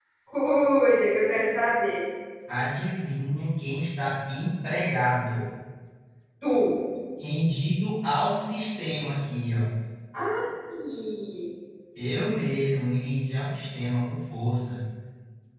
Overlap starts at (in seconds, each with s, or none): none